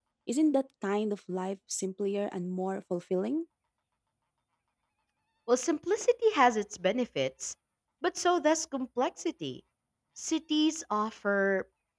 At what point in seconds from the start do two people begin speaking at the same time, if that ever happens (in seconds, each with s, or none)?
none